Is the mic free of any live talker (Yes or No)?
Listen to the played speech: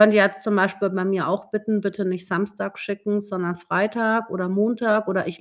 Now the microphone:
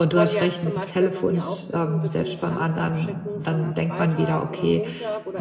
No